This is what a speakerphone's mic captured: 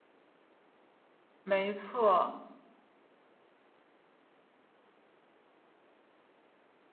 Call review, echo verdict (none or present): none